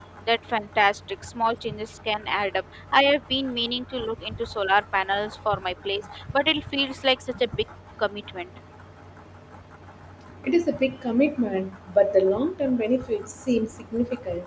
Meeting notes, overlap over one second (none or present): none